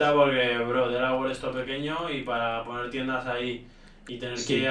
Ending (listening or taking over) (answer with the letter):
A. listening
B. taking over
A